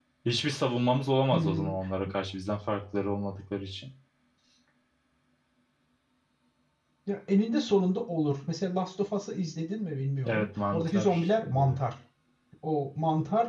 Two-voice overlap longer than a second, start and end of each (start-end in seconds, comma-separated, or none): 10.3-11.8